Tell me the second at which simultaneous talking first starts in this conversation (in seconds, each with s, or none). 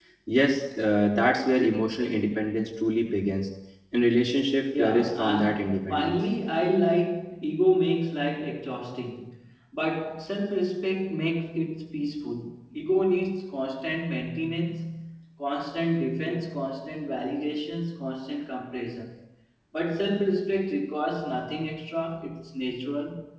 4.8 s